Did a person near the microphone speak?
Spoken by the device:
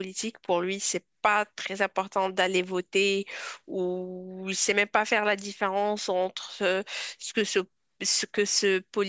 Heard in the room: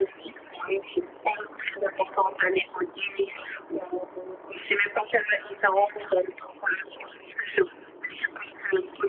No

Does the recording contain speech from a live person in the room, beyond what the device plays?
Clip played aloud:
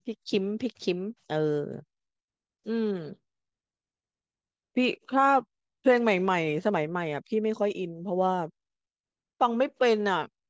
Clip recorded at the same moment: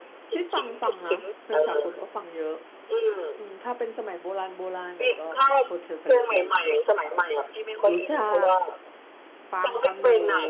Yes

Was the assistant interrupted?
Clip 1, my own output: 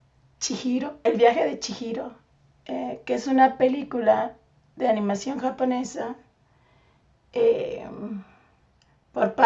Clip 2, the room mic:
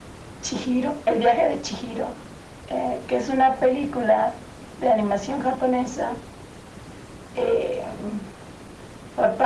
No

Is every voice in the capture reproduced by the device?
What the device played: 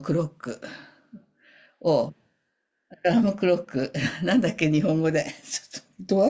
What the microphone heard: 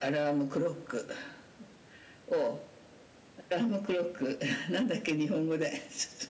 Yes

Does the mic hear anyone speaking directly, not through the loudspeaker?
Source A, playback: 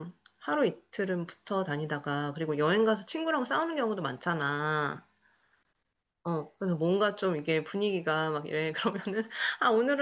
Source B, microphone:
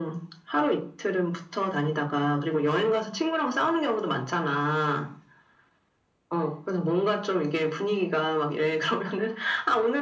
No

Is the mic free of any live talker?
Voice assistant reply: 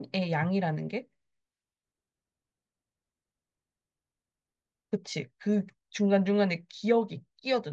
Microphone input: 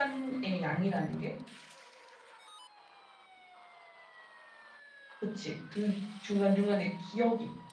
Yes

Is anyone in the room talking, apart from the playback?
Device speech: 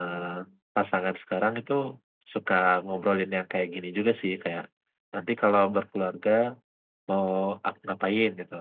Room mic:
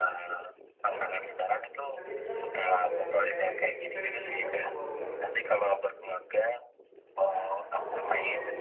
Yes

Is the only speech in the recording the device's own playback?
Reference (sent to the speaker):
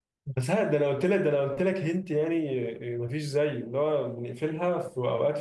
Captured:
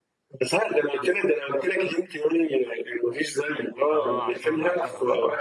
No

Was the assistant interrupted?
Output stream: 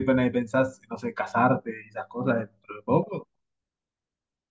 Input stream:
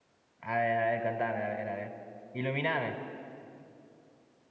Yes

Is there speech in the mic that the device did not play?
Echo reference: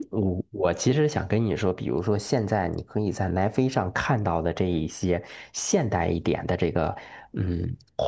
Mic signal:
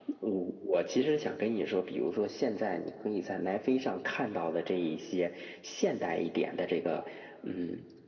No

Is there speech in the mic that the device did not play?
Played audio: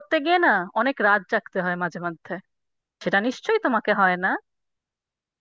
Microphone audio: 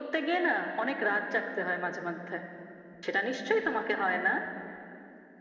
No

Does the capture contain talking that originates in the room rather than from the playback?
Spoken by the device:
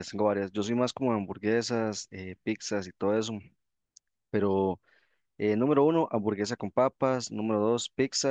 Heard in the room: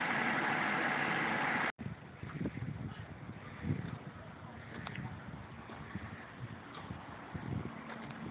No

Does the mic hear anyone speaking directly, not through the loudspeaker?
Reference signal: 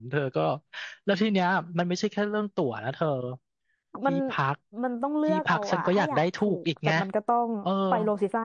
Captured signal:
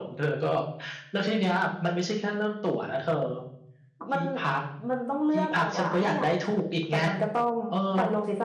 No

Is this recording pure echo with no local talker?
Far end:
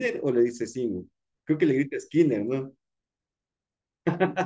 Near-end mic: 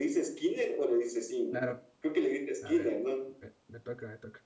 No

